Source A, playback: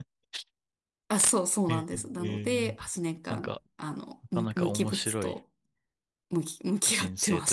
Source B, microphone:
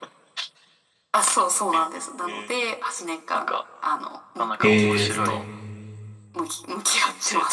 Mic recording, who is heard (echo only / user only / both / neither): both